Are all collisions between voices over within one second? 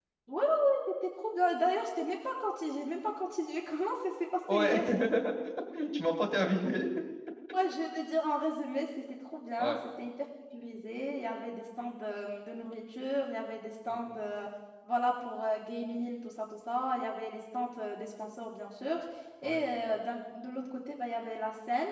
Yes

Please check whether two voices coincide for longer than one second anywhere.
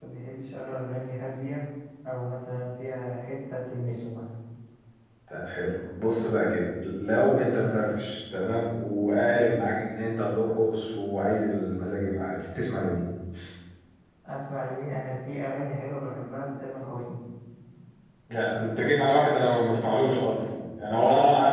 No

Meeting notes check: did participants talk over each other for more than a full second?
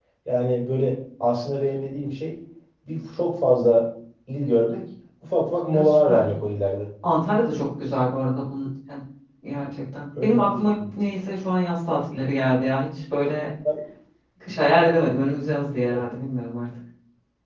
No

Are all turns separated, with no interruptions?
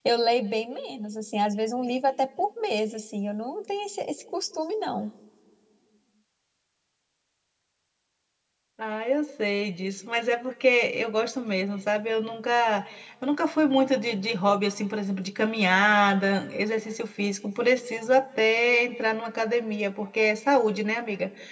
Yes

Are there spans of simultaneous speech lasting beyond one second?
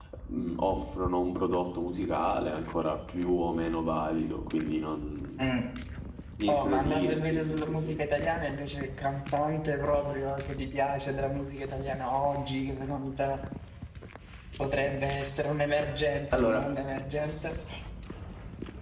Yes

